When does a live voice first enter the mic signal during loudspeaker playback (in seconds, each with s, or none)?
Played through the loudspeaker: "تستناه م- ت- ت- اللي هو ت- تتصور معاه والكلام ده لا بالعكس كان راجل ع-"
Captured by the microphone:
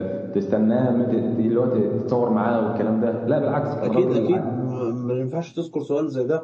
3.8 s